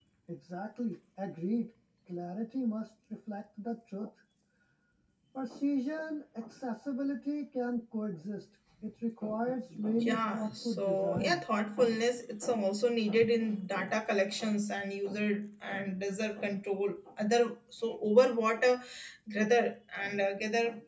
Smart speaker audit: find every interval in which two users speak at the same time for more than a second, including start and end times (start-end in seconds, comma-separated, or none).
10.0-11.4